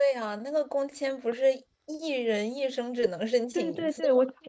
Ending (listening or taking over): taking over